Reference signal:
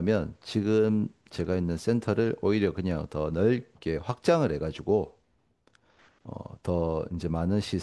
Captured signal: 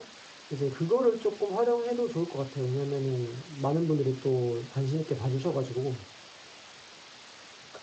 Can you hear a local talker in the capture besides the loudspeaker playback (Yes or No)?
Yes